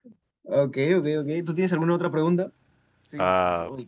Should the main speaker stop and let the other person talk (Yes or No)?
Yes